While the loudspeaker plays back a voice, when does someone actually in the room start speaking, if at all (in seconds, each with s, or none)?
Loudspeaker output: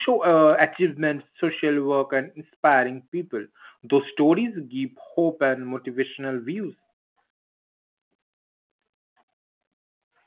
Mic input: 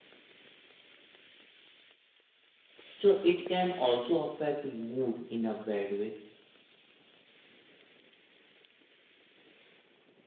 3.0 s